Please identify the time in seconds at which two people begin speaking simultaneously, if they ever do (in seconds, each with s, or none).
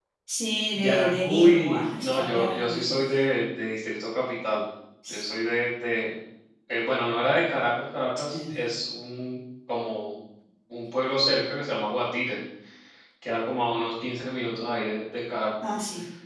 0.7 s